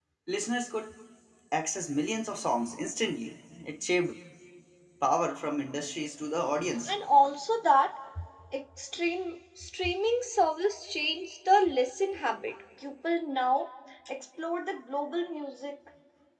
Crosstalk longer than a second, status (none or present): none